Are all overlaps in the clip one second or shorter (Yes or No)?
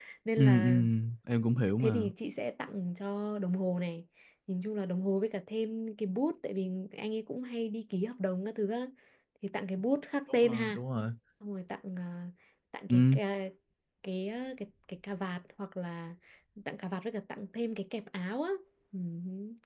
Yes